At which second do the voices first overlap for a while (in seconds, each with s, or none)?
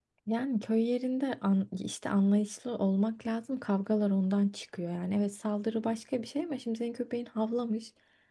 none